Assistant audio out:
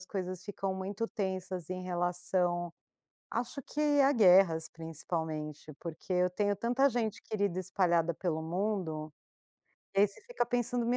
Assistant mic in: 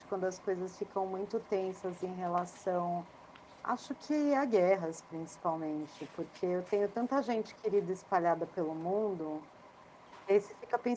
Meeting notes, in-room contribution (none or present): none